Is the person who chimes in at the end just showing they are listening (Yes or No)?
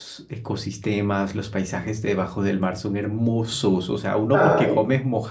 Yes